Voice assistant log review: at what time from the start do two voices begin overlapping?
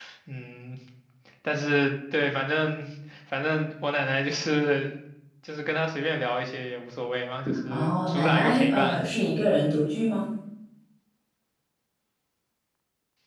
7.7 s

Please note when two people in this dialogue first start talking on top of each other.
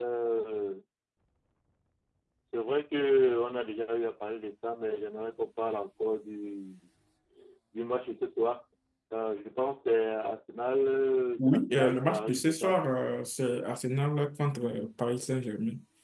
11.4 s

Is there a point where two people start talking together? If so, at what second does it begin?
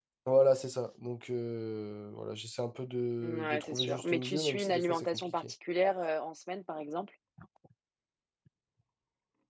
3.2 s

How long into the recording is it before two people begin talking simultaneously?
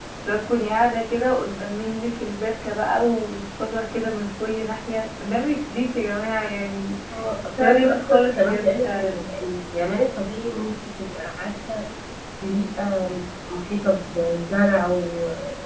7.6 s

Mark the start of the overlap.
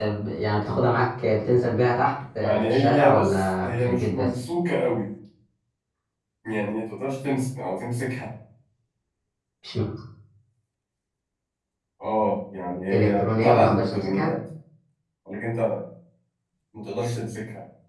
2.4 s

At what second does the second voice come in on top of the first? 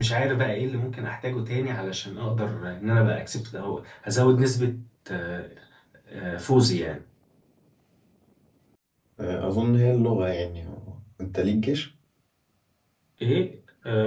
none

